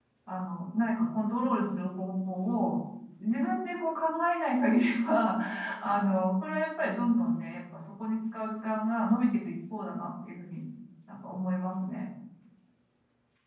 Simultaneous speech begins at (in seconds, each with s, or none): none